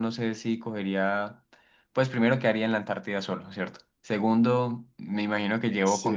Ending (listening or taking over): listening